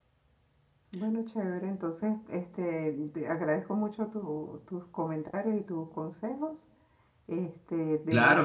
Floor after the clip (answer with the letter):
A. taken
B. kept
A